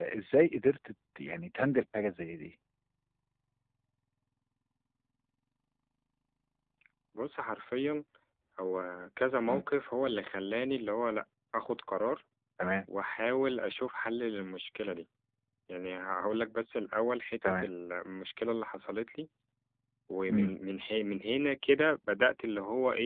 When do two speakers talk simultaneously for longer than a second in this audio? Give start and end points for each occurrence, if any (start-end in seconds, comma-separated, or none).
none